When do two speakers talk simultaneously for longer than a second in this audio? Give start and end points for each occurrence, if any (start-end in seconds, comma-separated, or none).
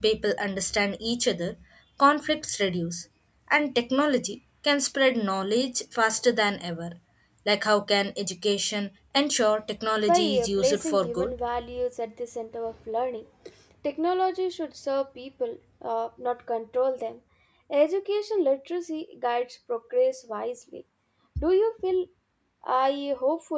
10.1-11.4